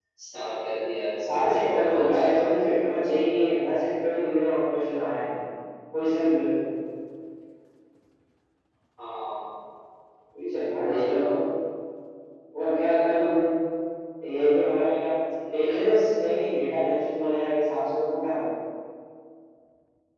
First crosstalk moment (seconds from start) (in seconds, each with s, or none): 1.2 s